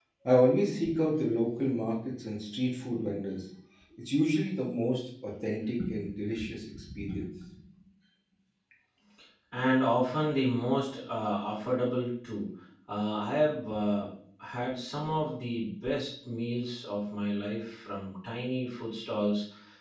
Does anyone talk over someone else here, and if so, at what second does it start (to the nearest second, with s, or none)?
none